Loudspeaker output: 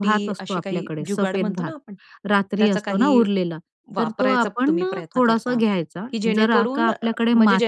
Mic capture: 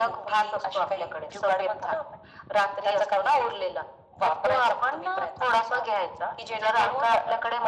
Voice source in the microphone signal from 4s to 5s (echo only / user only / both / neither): echo only